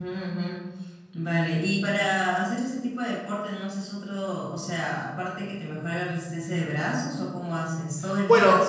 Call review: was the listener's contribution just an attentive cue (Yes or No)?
No